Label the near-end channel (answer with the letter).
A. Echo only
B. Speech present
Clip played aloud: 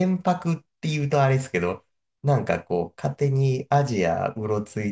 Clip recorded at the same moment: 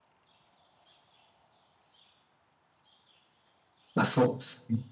B